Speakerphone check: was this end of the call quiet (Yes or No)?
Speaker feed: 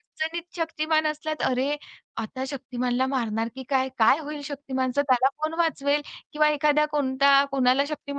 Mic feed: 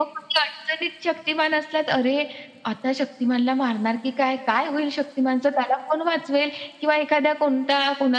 Yes